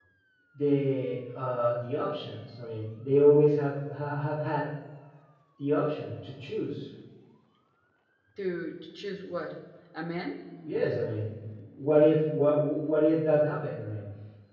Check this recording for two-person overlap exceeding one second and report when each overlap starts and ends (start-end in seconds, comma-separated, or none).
none